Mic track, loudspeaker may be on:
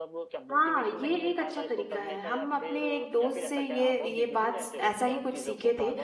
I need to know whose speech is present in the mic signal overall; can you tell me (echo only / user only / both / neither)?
both